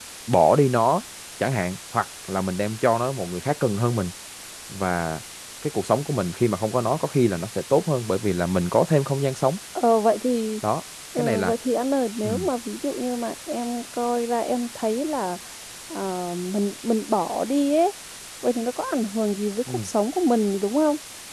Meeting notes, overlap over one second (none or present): none